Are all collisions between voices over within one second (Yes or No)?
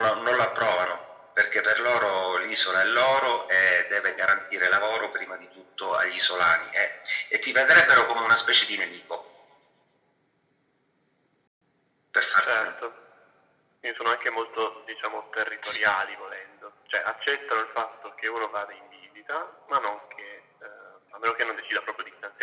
Yes